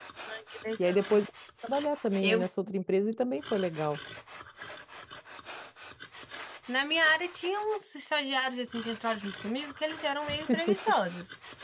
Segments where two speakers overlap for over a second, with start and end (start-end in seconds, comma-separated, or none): none